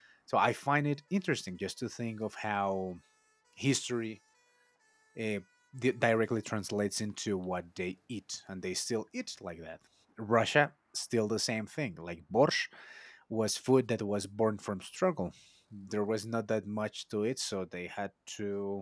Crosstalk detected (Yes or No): No